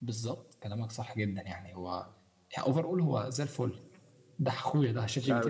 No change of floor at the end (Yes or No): No